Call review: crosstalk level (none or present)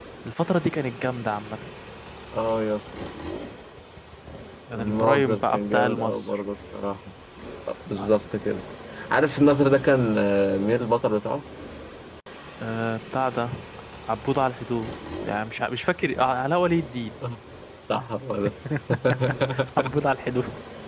present